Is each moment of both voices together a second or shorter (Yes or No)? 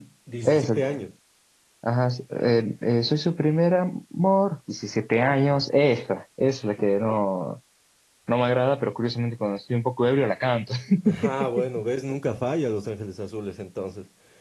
Yes